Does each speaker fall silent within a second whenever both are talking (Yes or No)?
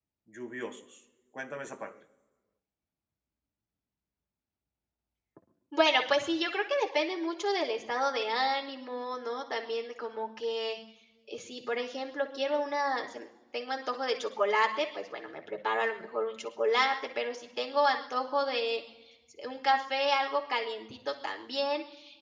Yes